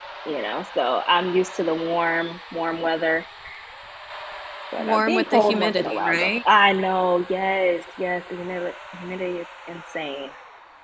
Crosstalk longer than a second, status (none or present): present